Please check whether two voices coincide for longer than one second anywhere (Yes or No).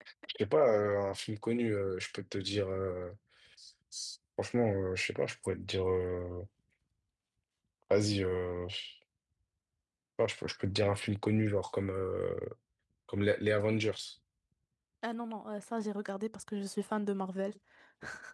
No